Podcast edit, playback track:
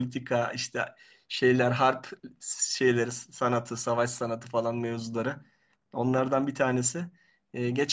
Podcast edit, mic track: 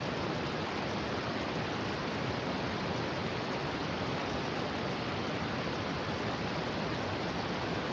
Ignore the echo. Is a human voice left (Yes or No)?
No